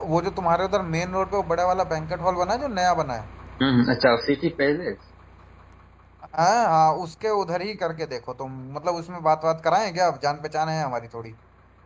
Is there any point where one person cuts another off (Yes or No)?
No